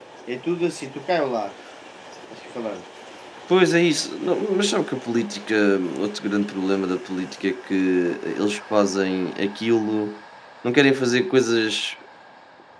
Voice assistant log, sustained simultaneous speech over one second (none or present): none